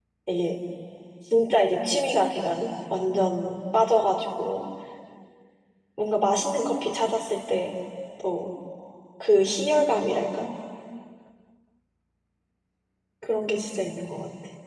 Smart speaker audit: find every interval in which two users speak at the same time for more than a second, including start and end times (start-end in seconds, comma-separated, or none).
none